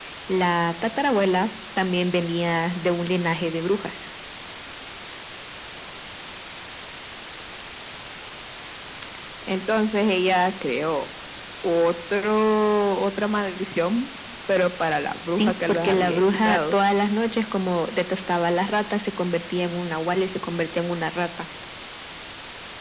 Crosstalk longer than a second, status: present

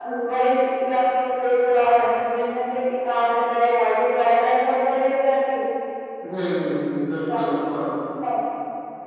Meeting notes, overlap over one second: none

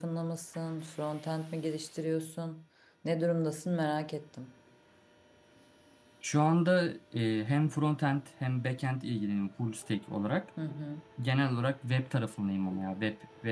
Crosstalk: none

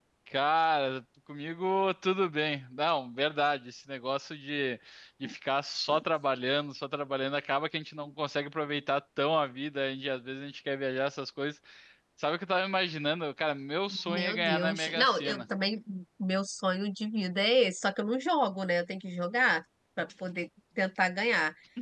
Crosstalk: present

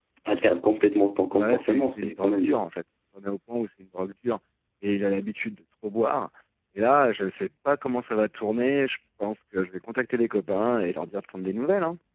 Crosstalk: present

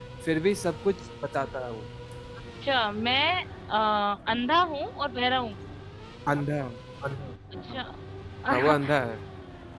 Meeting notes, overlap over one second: none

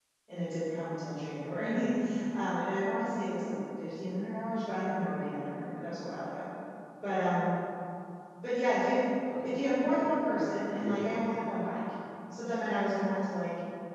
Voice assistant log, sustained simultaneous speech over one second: present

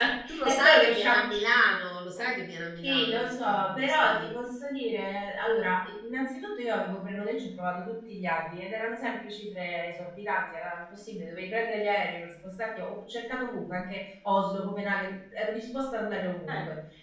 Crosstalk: present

